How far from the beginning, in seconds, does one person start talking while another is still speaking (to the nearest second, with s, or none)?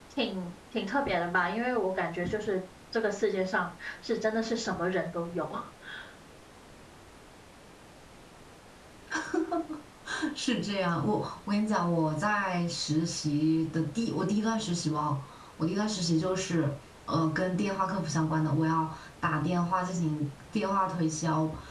none